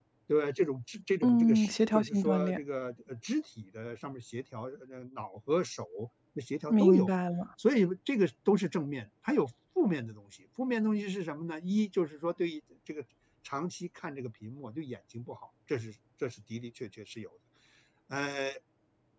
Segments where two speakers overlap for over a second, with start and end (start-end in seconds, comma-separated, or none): 1.2-2.6